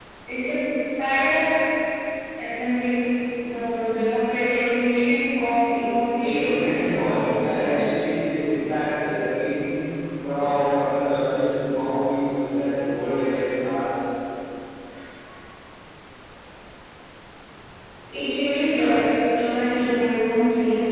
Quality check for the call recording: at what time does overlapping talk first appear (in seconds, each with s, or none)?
6.2 s